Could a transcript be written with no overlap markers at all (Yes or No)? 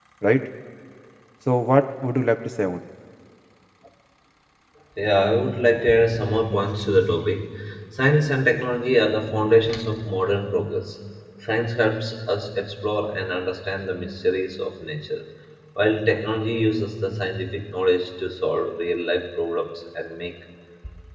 Yes